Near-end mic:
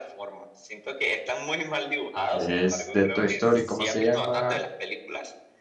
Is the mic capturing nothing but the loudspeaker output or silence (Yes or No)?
No